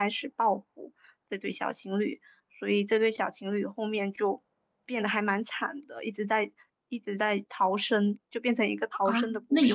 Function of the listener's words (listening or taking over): taking over